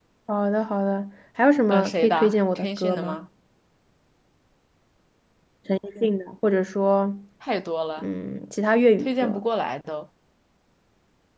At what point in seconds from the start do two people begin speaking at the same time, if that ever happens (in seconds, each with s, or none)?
1.7 s